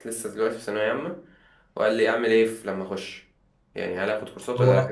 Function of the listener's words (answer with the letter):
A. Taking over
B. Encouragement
B